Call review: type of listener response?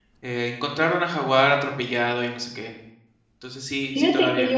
taking over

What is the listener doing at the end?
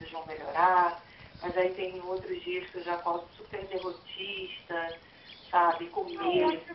taking over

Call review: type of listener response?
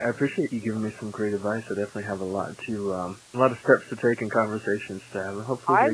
taking over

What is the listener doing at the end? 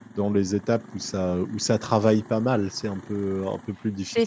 taking over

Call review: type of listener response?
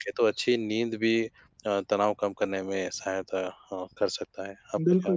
taking over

